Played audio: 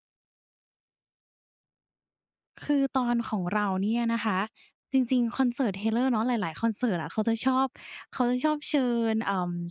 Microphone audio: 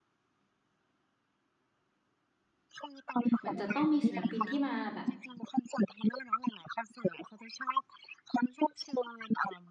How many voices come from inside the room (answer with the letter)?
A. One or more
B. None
A